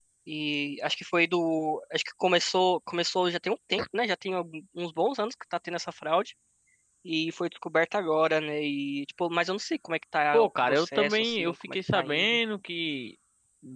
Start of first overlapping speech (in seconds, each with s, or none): 10.3 s